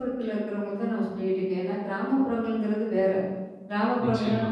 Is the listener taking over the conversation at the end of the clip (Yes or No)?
No